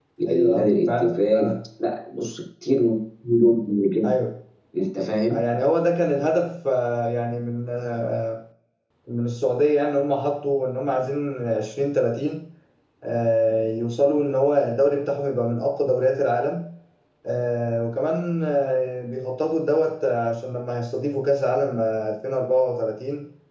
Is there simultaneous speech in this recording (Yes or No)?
Yes